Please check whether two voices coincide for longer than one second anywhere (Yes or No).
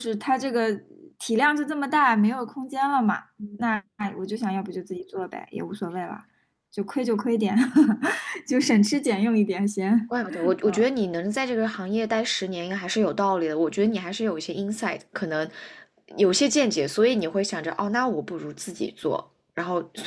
No